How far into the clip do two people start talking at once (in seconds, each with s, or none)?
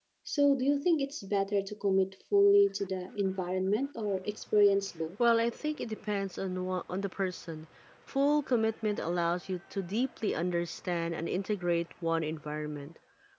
none